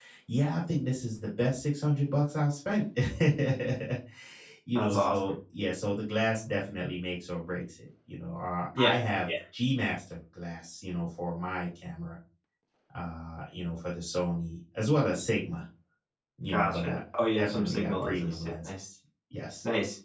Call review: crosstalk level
present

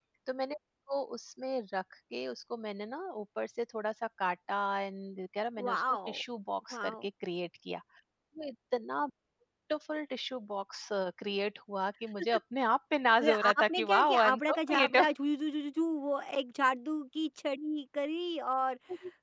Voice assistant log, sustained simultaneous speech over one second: present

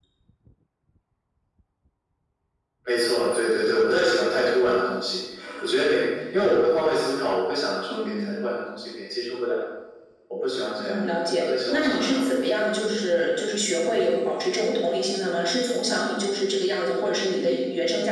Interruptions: present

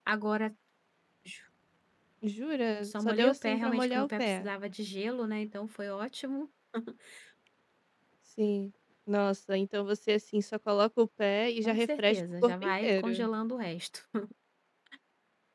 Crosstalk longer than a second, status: present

